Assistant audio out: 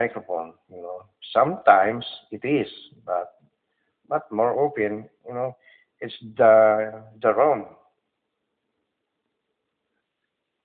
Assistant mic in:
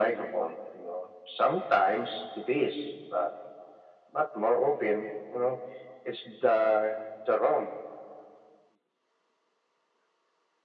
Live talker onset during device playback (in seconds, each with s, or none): none